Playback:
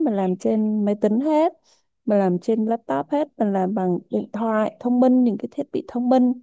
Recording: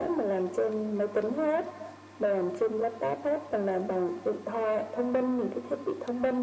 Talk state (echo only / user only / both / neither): echo only